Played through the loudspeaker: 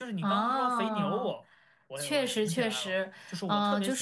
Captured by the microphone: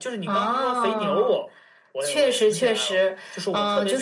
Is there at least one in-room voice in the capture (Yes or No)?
No